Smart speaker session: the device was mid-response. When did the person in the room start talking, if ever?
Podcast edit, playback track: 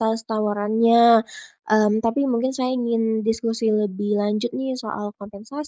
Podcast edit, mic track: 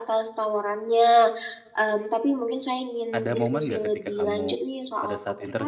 3.1 s

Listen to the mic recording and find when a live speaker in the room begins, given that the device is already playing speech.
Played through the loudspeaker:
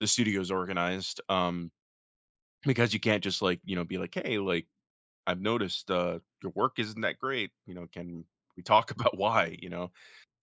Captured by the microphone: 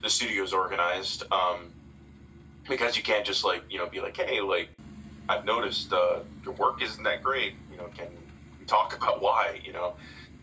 none

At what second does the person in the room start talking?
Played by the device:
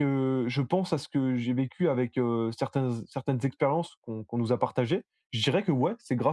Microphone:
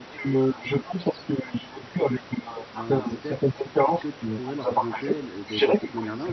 2.7 s

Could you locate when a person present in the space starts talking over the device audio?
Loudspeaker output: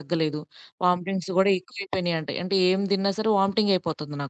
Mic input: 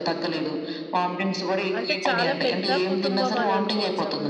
1.8 s

